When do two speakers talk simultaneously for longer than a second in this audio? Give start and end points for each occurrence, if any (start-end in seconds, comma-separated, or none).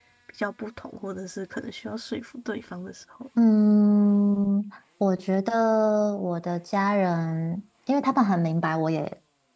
none